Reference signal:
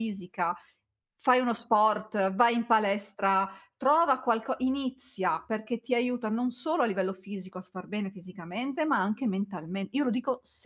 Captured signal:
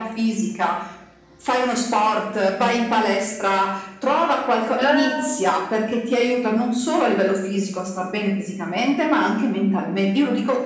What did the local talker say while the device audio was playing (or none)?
Ah.